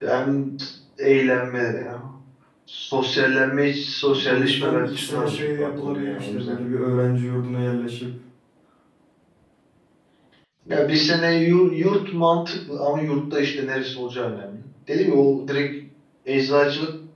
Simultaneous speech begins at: 4.0 s

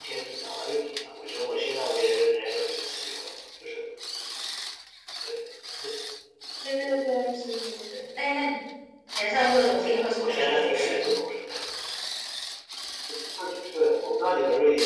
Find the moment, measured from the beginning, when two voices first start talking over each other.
9.5 s

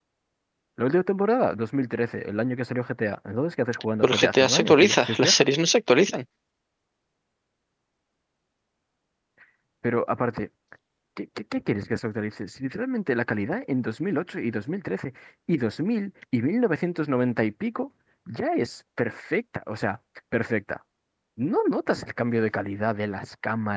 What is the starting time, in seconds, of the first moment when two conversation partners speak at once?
4.0 s

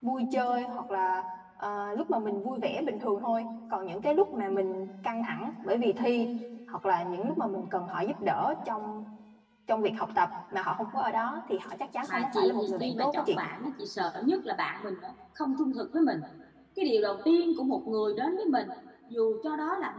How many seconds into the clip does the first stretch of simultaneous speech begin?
12.1 s

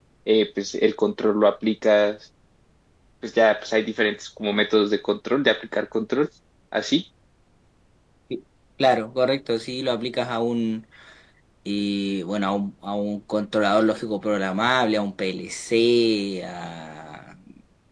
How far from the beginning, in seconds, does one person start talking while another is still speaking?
none

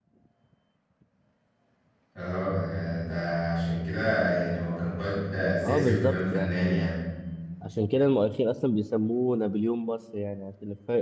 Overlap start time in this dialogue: 5.6 s

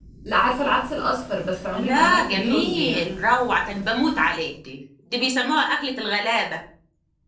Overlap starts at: 1.8 s

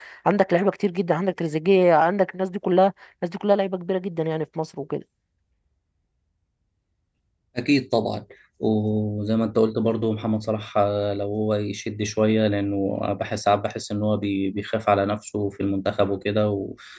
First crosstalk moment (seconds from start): none

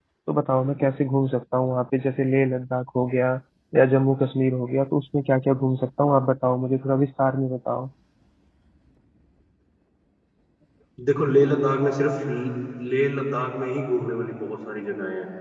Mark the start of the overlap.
none

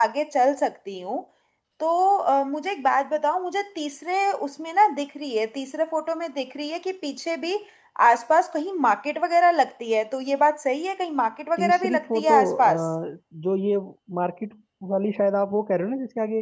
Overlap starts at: 11.6 s

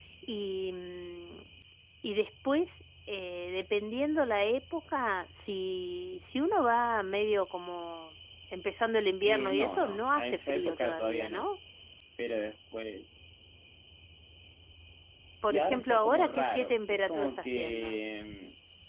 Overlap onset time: 9.2 s

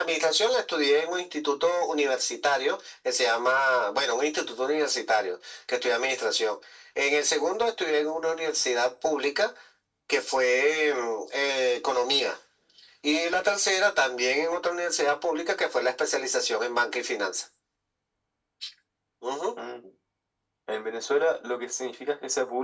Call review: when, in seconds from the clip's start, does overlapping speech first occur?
none

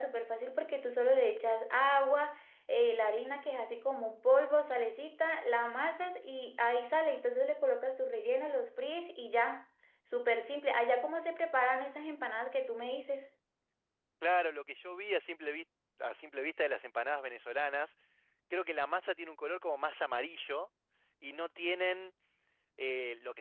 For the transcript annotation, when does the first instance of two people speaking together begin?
none

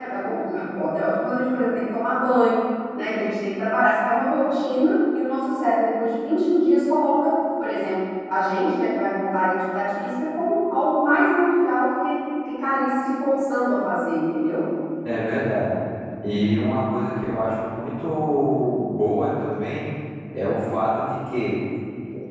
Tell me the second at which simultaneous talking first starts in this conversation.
none

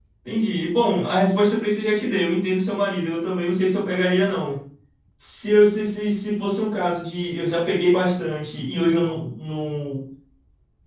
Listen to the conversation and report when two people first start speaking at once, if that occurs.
none

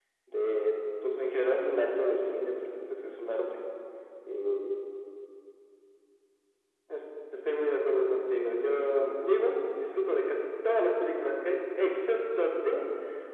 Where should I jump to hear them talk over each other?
none

